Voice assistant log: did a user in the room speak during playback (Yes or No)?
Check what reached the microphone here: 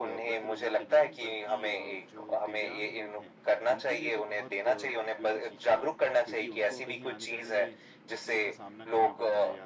Yes